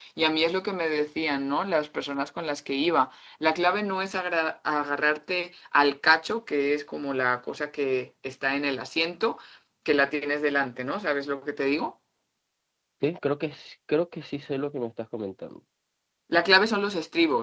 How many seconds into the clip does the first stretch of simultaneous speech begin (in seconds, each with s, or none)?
none